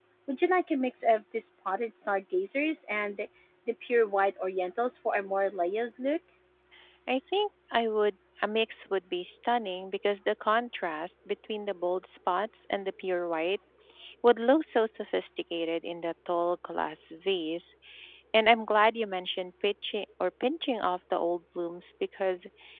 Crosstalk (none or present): none